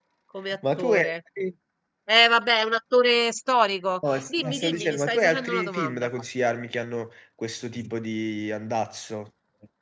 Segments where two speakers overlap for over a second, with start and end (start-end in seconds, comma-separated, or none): 4.1-6.1